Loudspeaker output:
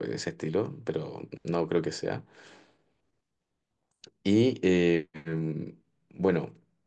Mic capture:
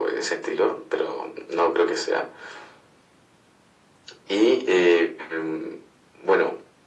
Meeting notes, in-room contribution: none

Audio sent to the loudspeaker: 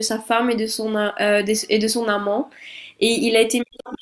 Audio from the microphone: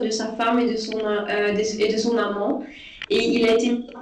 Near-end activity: none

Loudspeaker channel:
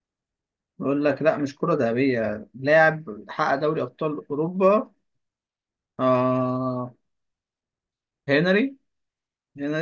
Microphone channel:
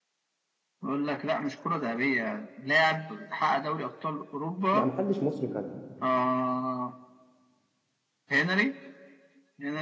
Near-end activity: present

